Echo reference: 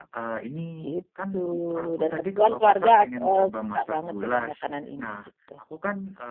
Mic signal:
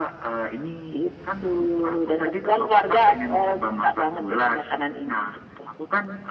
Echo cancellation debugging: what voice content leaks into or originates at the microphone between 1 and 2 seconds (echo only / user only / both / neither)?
echo only